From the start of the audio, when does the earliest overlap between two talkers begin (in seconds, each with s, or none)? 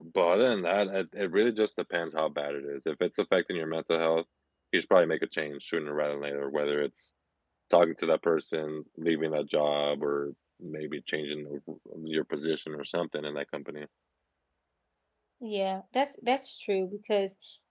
none